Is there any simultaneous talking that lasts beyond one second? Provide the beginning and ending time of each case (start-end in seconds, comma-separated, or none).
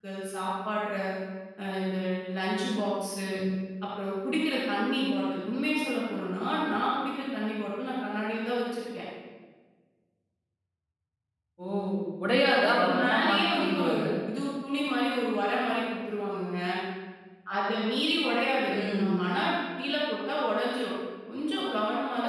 12.6-13.9